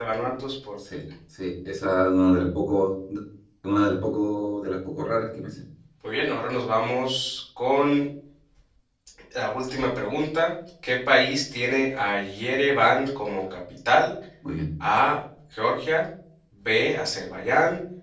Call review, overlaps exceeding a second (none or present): none